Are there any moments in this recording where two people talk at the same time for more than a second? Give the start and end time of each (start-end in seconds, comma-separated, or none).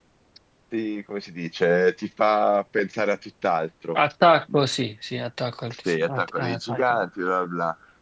5.7-7.0